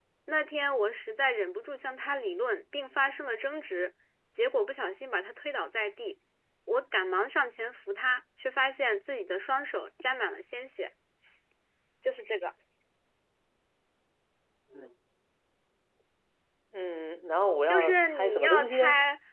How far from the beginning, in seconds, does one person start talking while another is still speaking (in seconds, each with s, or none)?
17.7 s